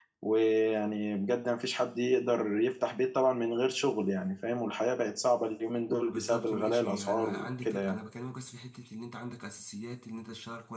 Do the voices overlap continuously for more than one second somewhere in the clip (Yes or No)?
Yes